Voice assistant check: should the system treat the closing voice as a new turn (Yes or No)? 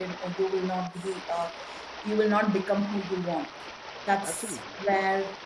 No